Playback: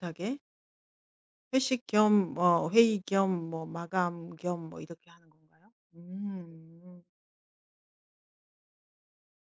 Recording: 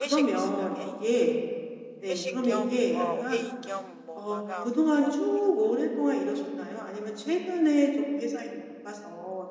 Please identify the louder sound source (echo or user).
user